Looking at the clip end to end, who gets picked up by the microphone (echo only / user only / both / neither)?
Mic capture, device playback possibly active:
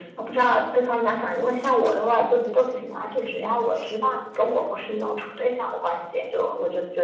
both